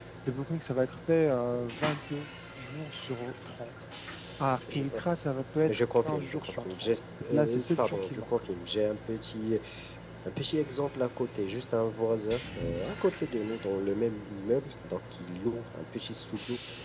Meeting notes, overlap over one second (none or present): present